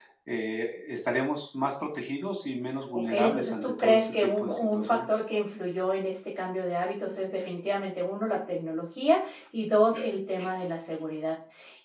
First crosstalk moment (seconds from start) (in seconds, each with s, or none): 2.9 s